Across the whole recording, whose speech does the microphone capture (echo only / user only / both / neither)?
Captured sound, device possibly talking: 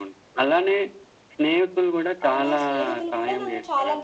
both